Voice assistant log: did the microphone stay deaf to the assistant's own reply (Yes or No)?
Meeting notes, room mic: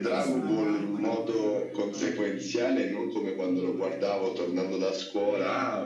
No